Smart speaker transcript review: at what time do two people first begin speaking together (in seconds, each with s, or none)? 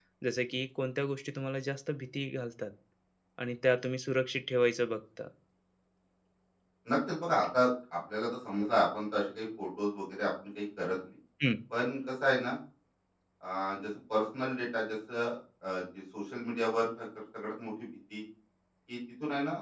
none